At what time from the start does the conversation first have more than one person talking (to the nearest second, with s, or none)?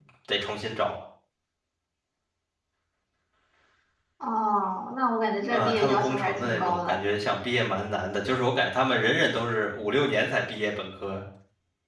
5 s